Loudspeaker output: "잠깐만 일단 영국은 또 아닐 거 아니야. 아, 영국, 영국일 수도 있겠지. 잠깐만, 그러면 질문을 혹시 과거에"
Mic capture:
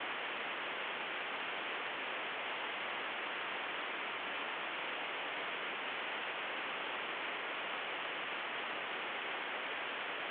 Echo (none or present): none